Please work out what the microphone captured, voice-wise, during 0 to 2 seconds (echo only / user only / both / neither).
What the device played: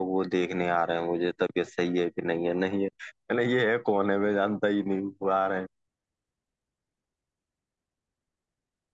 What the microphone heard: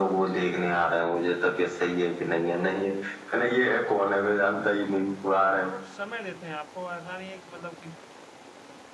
echo only